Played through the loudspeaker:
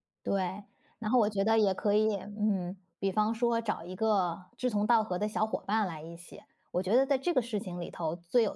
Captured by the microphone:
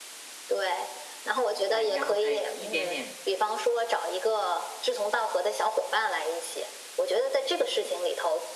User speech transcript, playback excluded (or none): 哎，然后再一点点